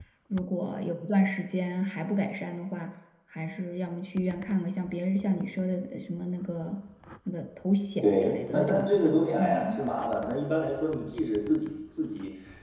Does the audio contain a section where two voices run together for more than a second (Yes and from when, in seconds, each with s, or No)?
Yes, from 8.0 s